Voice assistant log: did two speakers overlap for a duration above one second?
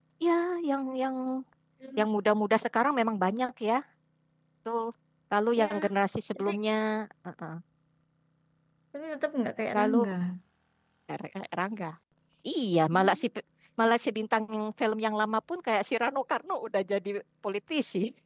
No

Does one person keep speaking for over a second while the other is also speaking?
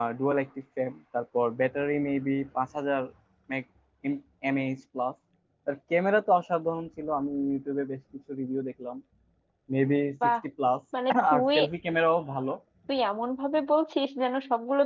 No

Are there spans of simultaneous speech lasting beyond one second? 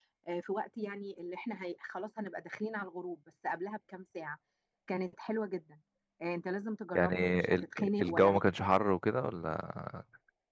Yes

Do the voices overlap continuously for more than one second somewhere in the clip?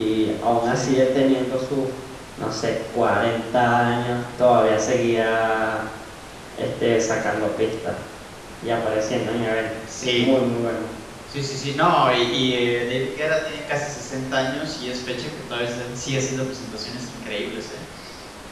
No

